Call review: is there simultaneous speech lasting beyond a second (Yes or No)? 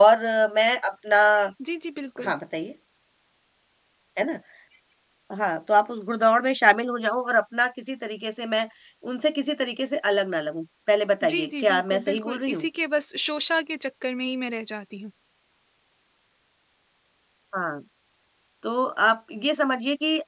Yes